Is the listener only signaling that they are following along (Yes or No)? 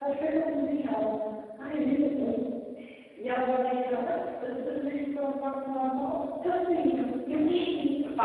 No